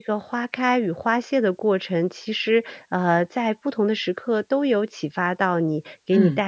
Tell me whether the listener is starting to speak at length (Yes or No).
No